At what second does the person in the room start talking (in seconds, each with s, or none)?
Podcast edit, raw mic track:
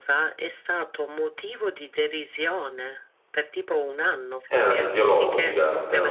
4.5 s